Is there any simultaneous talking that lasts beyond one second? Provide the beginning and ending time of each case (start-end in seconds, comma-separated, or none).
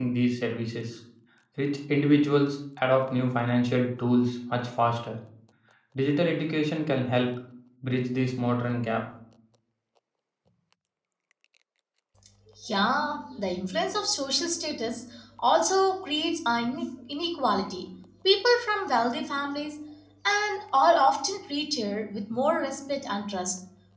none